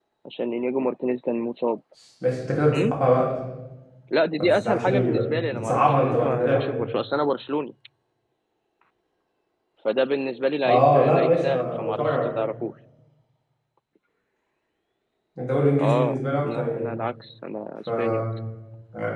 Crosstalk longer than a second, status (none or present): present